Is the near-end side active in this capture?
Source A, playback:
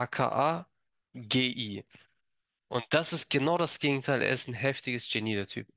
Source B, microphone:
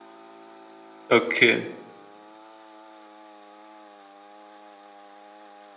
Yes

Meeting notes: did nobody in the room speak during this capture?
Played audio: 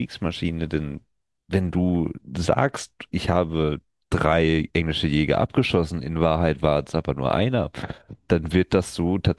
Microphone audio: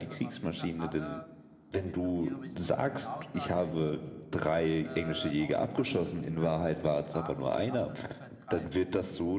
No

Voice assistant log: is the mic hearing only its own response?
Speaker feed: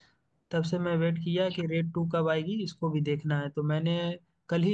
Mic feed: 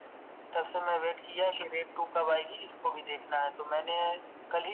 Yes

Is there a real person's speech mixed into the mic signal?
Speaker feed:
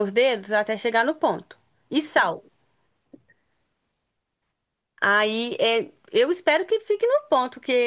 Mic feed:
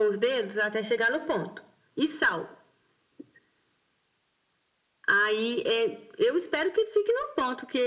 No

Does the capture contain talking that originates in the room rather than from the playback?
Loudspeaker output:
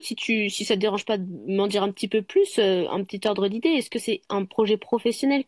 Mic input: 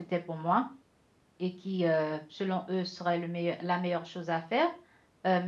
Yes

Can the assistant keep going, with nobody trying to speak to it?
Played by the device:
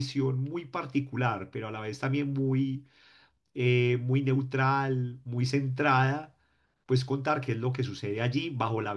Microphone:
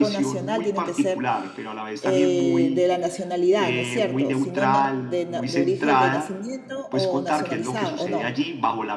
No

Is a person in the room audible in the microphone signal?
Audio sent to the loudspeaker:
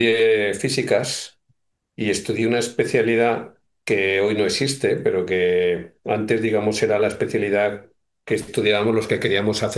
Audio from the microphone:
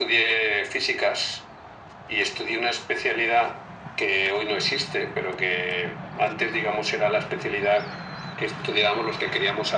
No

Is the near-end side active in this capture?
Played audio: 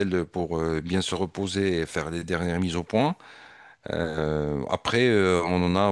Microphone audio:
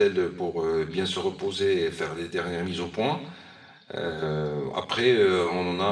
No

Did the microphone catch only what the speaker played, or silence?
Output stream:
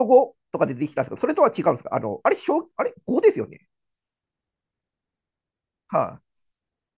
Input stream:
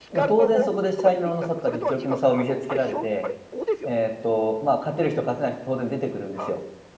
No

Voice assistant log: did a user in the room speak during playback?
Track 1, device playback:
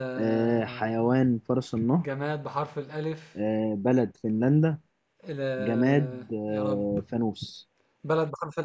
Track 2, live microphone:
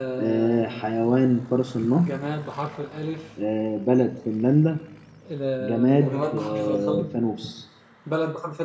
Yes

